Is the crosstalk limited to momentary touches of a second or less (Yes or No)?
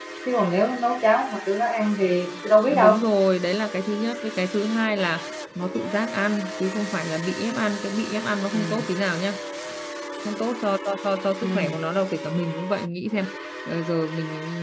Yes